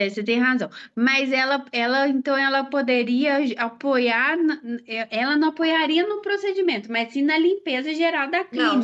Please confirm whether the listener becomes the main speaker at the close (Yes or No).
Yes